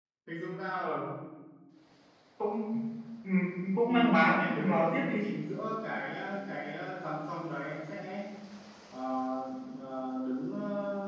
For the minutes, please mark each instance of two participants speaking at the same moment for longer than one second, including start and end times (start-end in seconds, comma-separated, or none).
3.9-5.1